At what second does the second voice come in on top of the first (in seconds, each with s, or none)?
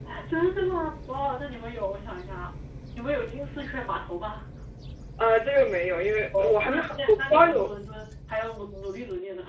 6.3 s